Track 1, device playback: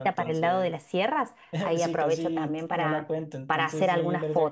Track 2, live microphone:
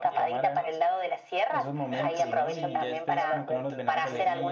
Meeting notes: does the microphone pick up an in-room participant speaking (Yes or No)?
Yes